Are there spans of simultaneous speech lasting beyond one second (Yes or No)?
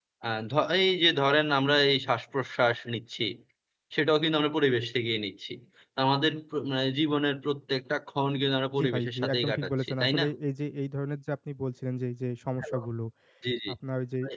Yes